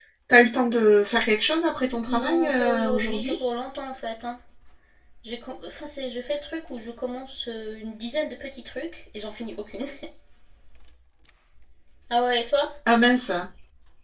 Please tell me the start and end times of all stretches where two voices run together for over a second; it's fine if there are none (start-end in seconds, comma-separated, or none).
2.1-3.4